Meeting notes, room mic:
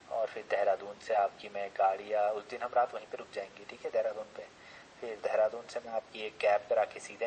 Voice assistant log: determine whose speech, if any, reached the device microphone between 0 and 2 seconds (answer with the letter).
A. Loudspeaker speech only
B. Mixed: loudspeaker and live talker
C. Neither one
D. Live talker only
A